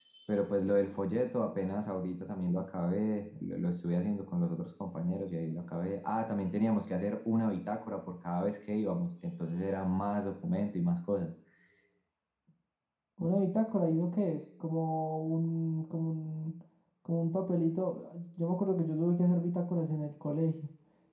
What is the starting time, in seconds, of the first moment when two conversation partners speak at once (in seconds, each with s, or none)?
none